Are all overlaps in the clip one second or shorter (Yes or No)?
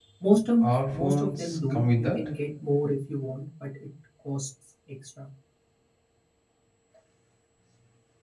No